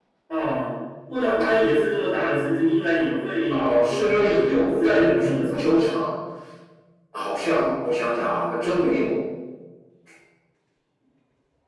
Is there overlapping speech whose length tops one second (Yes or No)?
Yes